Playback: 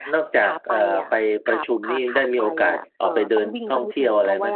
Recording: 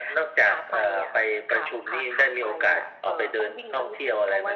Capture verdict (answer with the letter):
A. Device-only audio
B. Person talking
A